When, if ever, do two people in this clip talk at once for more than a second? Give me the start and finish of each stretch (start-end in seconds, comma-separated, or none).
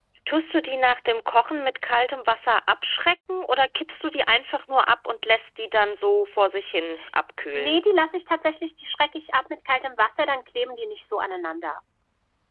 none